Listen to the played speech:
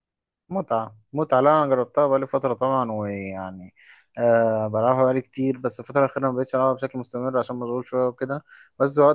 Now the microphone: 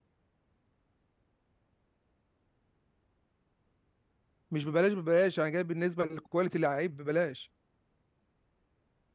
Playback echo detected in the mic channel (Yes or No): No